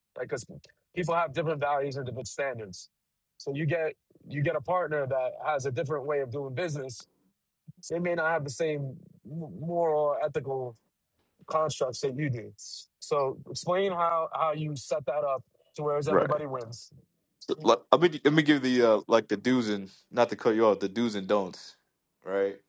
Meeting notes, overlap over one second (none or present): none